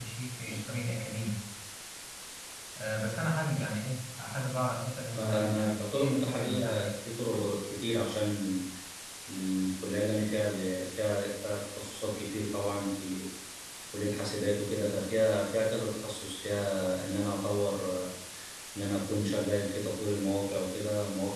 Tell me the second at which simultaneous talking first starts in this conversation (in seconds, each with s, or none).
5.2 s